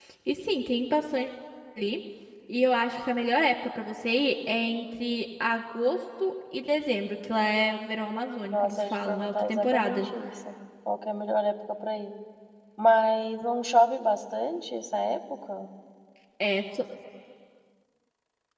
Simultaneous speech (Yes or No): Yes